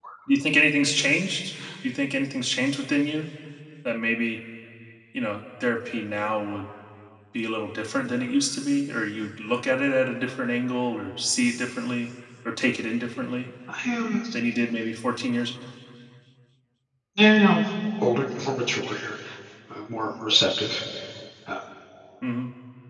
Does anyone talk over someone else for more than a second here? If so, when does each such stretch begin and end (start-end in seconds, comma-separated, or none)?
none